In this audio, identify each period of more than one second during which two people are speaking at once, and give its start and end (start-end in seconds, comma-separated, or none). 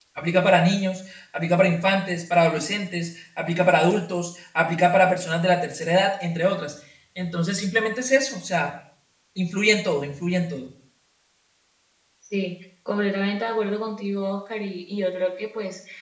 none